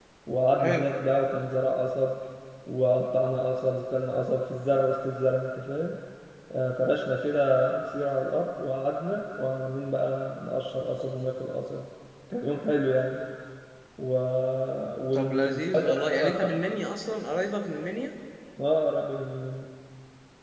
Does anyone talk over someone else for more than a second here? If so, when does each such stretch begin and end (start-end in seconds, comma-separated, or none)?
15.1-16.5